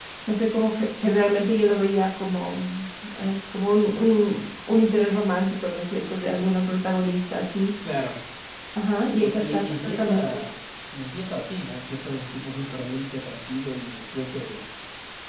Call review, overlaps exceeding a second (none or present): present